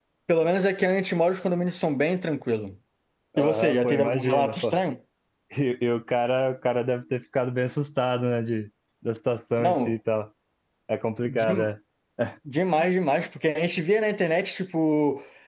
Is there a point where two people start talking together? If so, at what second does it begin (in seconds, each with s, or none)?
3.4 s